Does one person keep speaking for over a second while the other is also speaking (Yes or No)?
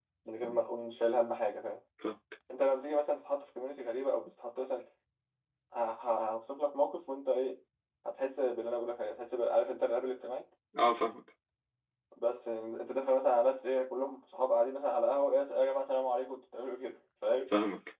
No